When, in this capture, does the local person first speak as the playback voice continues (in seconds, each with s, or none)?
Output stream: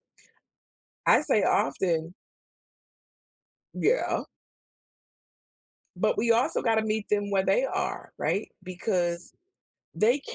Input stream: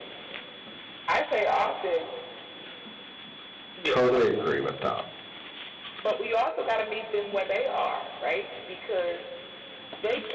3.8 s